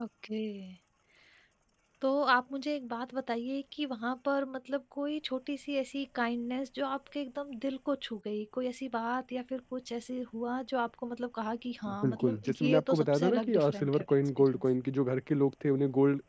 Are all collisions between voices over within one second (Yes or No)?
No